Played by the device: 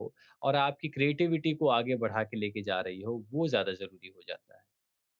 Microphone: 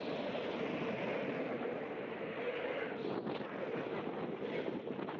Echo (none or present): none